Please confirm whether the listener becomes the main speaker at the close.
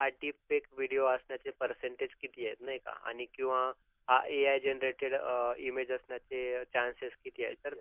No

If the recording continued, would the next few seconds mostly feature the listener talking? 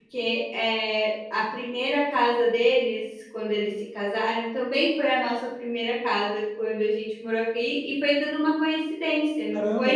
Yes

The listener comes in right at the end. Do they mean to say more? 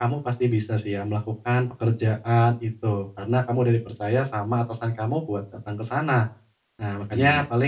No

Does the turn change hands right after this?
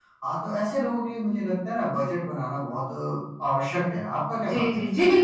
Yes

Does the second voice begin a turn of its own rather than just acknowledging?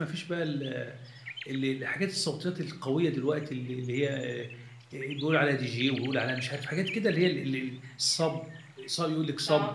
No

